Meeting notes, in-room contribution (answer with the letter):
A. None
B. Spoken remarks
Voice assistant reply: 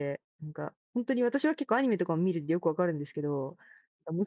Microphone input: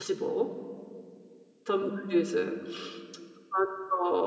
B